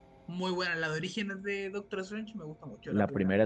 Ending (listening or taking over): taking over